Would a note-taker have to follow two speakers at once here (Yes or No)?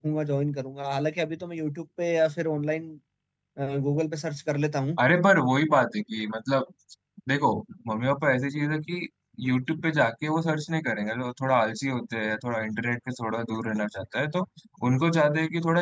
No